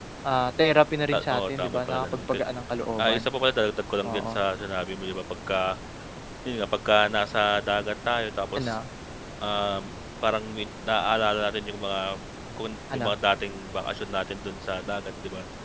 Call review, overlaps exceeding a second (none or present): present